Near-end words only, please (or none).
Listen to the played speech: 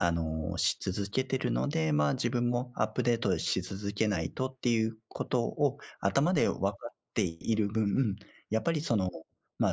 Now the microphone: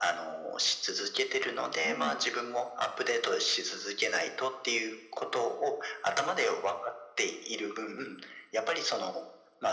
はい。